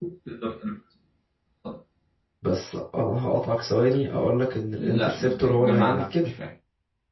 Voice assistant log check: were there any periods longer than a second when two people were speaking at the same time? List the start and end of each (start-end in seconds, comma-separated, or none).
4.8-6.3